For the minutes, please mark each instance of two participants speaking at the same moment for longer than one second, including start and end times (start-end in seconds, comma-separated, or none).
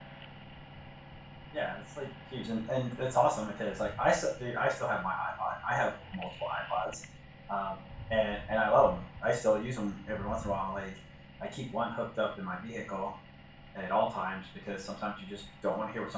none